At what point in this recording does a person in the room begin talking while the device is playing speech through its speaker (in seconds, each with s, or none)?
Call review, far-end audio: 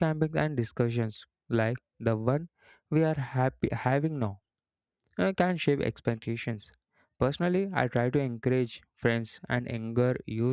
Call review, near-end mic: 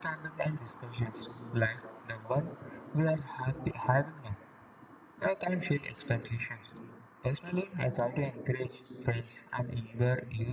none